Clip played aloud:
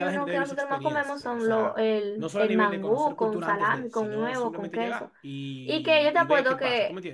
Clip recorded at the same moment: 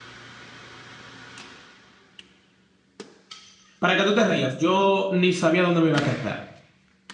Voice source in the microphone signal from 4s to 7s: user only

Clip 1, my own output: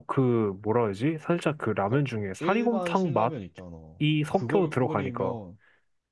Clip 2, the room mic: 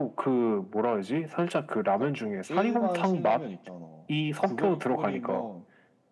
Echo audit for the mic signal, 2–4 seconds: echo only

